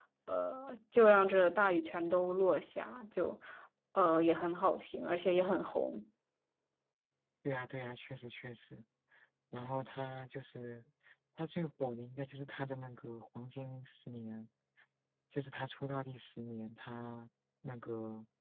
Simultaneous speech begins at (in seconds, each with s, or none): none